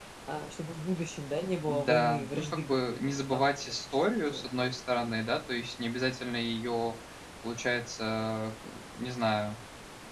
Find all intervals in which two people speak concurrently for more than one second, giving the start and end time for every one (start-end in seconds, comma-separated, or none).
1.6-4.7